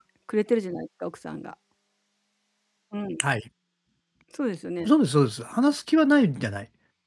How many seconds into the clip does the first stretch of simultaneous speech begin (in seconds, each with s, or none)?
none